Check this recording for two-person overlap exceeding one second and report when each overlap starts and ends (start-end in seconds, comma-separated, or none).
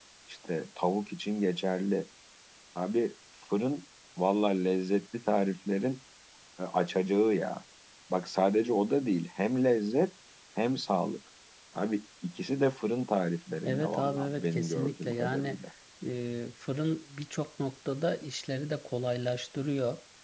13.7-15.6